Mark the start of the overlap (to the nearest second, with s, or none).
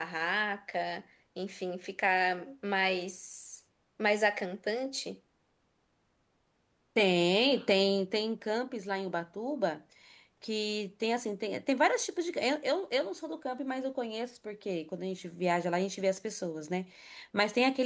none